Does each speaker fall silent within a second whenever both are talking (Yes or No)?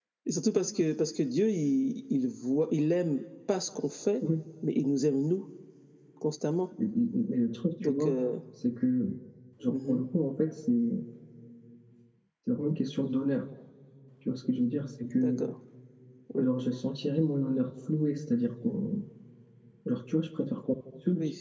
Yes